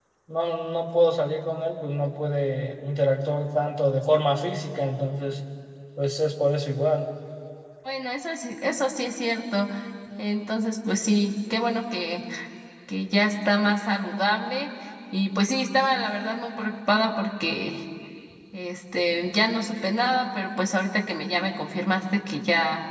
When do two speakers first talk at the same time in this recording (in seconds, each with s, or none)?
none